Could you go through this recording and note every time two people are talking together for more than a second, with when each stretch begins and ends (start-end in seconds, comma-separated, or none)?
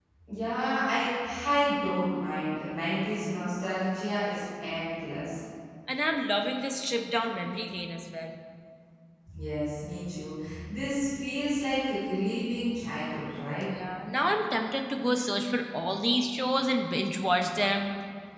none